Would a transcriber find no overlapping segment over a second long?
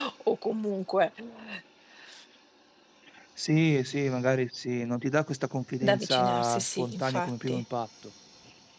No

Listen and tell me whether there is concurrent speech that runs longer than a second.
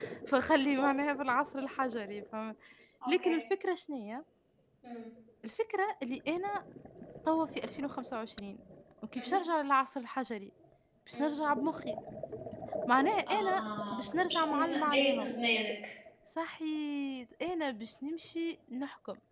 Yes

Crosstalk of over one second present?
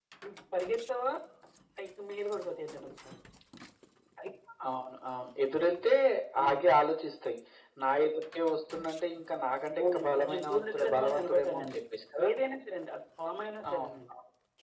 Yes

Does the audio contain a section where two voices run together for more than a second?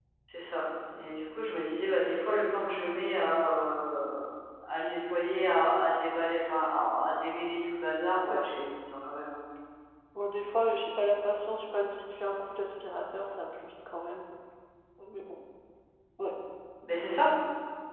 No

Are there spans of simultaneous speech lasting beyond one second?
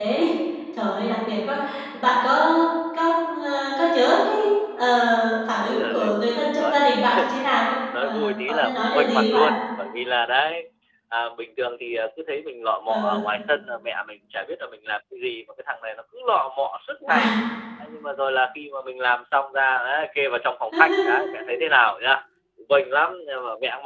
Yes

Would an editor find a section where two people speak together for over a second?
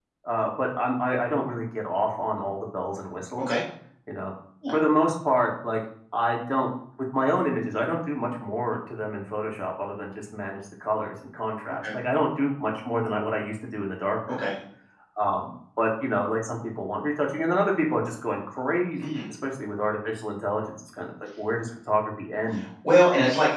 No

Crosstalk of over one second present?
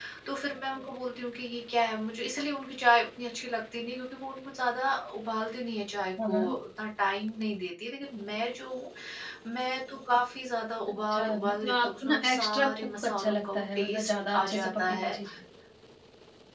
Yes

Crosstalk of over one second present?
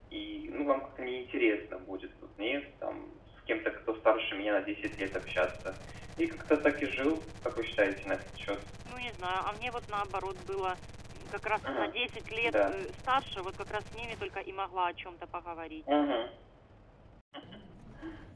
No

